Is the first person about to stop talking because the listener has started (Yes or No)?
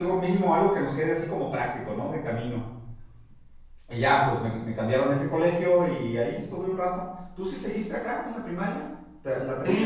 Yes